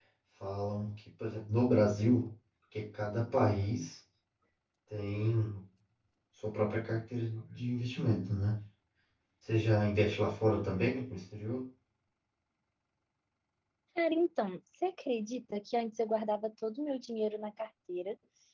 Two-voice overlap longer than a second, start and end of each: none

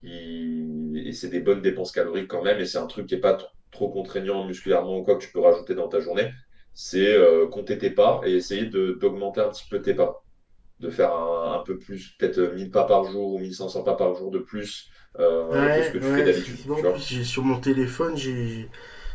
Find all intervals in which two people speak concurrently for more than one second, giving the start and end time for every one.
15.5-17.0

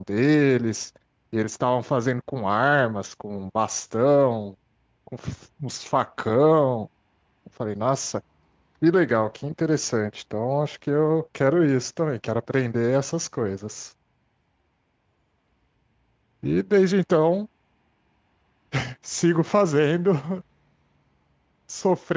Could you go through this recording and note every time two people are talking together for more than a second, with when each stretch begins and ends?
none

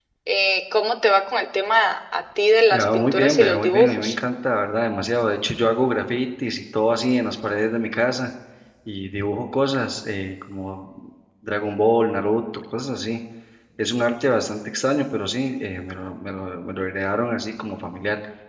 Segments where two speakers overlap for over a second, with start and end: 2.7-4.2

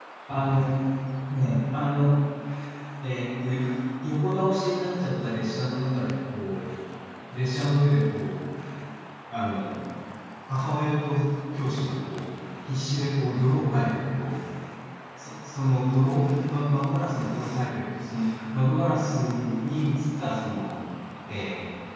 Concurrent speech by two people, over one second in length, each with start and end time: none

